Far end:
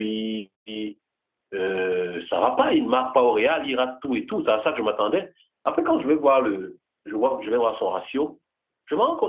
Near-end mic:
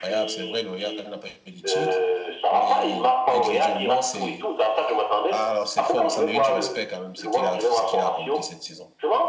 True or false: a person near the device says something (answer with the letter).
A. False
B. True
B